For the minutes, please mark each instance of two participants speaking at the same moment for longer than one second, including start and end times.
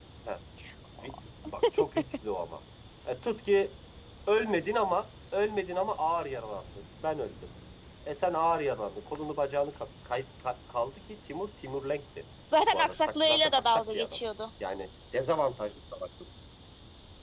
12.7-14.2

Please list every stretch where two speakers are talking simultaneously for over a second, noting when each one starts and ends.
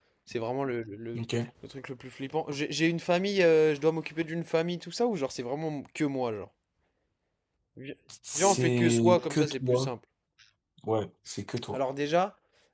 8.3-9.9

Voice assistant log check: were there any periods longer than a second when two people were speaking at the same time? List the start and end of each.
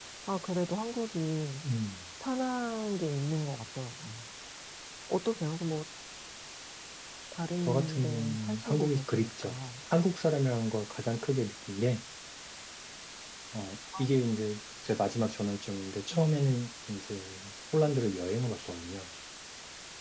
7.6-9.5

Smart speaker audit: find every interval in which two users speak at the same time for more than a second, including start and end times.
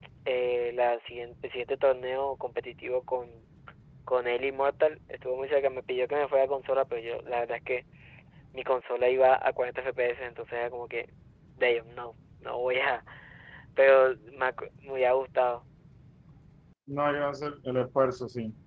none

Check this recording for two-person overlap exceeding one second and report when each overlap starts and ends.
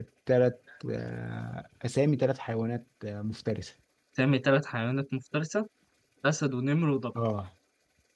none

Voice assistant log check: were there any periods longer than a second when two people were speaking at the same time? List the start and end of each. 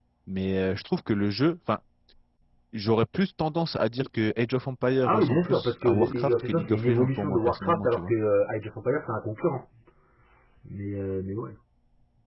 5.0-8.1

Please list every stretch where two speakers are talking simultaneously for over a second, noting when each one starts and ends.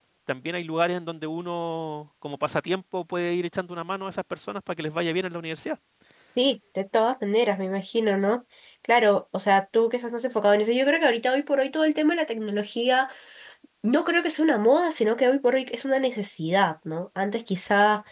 none

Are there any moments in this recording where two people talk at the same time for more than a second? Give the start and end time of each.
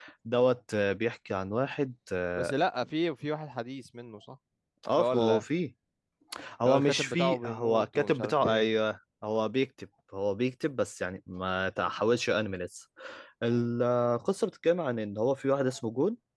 6.7-8.7

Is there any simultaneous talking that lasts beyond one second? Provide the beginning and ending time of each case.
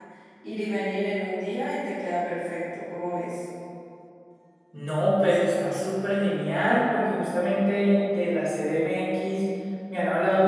none

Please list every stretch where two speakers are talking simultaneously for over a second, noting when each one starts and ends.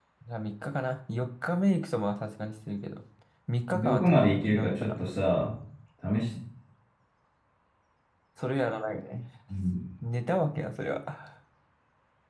3.7-5.1

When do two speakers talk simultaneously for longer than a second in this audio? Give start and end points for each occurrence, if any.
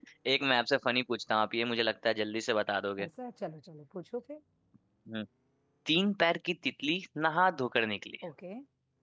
none

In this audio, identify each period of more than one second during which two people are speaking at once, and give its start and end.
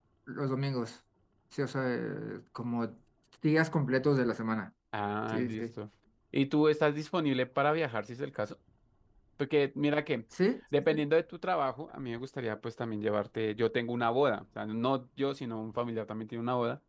none

